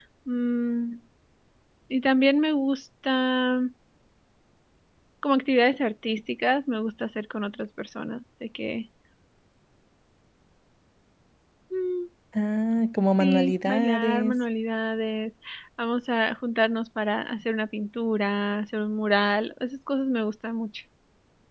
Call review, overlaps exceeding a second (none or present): present